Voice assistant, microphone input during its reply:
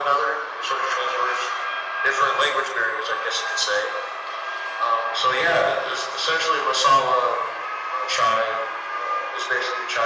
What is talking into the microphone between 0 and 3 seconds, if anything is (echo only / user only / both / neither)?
echo only